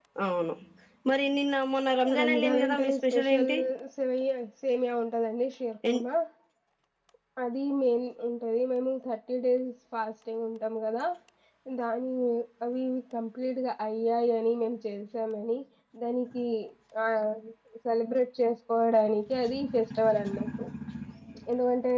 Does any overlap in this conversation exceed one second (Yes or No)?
Yes